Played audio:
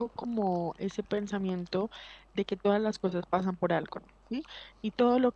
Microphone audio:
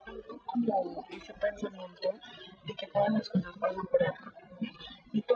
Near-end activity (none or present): none